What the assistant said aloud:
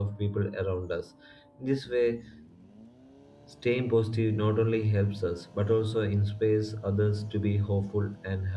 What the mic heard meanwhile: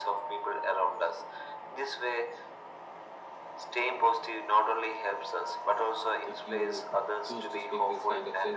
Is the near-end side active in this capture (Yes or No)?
Yes